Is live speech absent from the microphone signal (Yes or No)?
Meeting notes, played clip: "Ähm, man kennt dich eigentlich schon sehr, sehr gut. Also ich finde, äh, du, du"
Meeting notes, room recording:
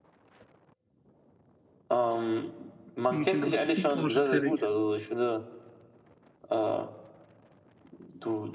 No